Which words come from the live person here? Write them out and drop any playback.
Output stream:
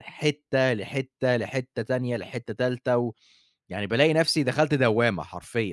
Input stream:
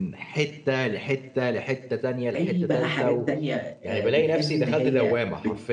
أي بقى حاجات تانية آآ بتحس إن هي بت

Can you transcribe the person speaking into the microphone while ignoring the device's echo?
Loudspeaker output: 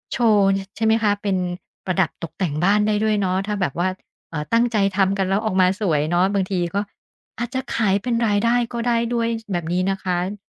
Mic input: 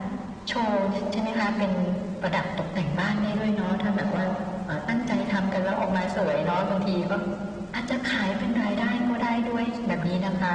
none

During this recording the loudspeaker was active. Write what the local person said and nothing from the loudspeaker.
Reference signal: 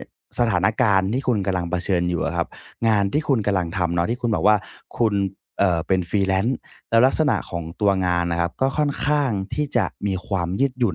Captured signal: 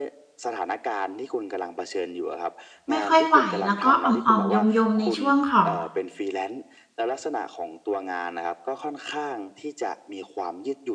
ไม่ค่อยไหวแล้วก็อ่อมๆยมๆในช่วงของ

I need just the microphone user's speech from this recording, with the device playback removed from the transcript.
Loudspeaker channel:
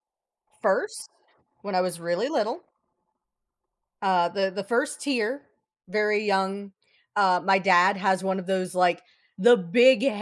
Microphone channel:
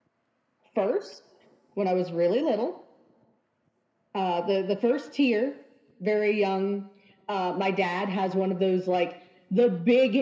none

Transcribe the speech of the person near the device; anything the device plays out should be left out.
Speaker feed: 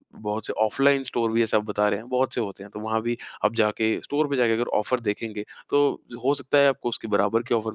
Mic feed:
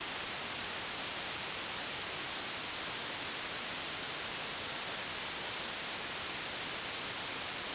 none

